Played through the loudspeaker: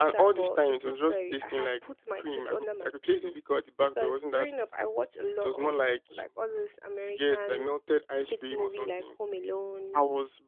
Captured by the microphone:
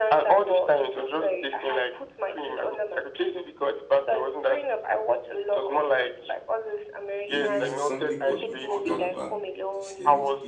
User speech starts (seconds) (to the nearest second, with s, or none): 7 s